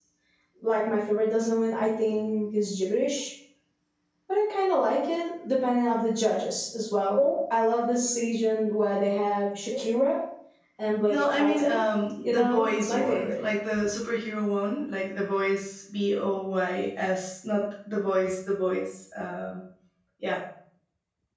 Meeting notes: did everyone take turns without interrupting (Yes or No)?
No